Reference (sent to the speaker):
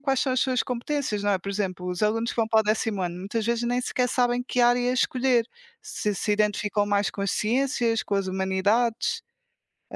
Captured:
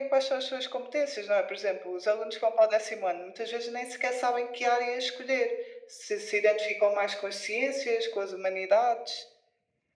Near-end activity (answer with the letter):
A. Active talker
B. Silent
B